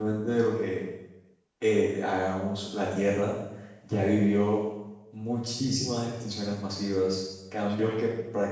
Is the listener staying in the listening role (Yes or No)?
Yes